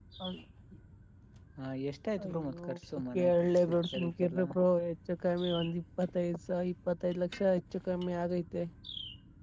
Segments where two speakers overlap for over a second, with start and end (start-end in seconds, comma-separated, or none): 3.1-4.4